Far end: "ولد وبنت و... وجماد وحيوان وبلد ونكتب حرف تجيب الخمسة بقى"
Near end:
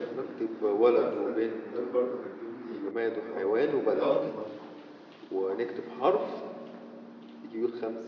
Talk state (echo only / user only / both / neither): both